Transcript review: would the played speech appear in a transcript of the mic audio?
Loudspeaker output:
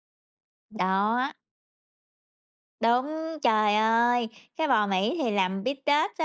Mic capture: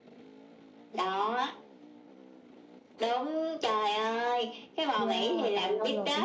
Yes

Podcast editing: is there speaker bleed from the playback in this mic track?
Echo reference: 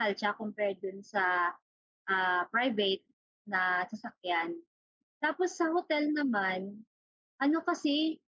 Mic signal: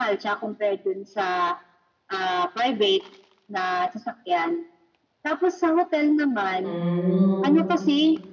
Yes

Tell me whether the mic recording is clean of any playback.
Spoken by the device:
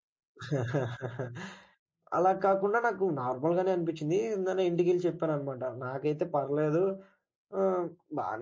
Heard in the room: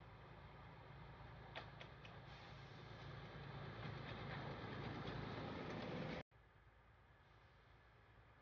Yes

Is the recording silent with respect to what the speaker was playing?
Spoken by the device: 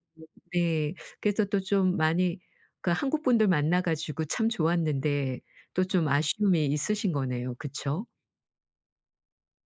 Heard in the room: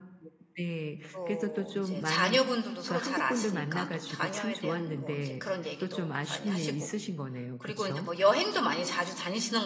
No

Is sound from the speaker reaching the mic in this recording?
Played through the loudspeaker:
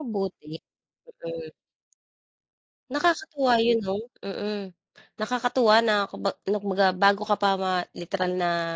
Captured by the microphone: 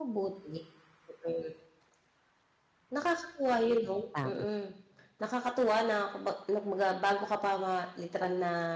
Yes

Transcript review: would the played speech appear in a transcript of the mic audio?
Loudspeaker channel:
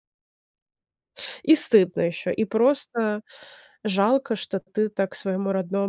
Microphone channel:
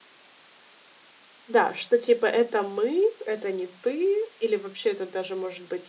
No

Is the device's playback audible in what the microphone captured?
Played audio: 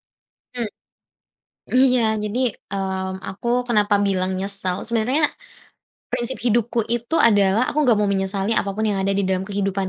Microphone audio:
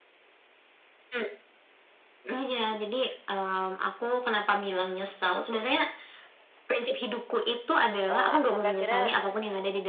Yes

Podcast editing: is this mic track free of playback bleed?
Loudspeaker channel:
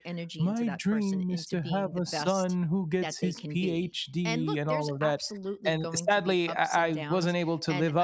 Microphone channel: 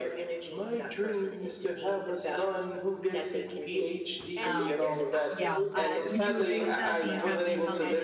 No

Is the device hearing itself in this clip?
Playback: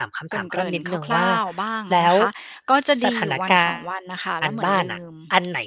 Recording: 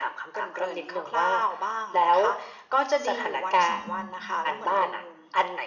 Yes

